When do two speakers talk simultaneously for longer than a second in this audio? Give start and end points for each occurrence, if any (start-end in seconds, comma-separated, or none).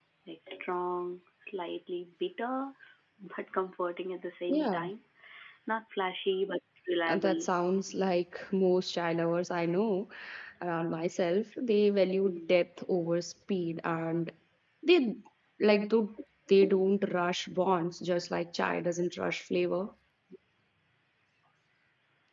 none